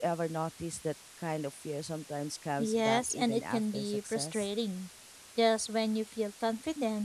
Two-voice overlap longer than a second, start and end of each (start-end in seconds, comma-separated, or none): 2.6-4.5